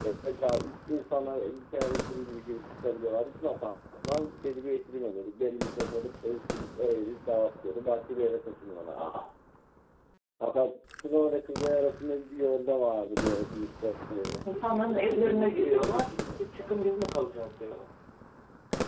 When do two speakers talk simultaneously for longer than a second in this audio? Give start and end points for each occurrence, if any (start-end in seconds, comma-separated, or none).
14.9-16.7